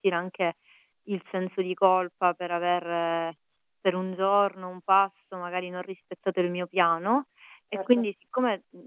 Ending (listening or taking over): listening